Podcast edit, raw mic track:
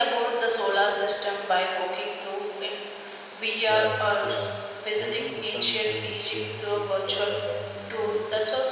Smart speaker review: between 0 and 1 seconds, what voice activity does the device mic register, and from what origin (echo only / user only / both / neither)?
echo only